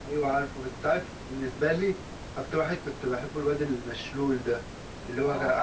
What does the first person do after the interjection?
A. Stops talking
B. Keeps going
B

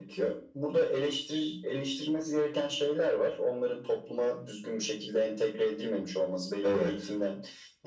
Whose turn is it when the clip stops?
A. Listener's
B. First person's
B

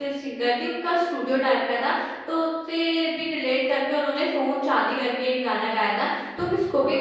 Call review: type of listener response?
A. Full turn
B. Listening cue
B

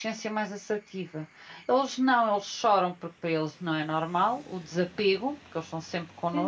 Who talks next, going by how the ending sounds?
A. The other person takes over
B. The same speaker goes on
A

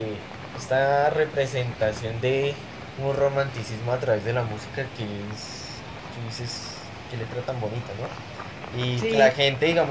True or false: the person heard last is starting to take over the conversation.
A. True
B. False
B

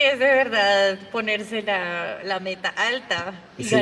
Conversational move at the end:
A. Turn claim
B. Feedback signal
A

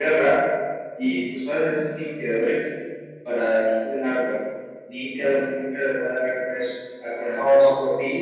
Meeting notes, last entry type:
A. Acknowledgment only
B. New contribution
A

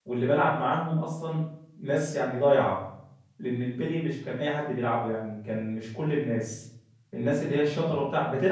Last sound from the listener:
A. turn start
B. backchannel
B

